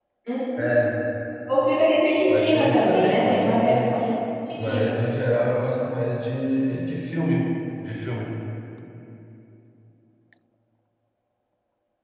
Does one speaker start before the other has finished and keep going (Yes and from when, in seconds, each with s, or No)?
Yes, from 2.3 s